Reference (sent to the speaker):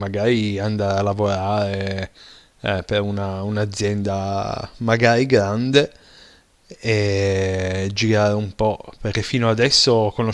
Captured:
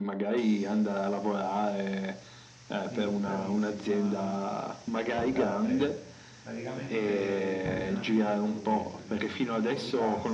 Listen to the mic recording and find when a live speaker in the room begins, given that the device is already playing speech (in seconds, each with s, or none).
2.8 s